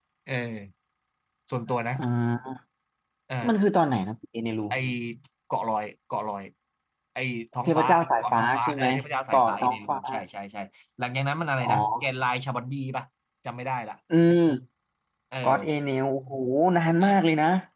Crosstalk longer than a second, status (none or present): present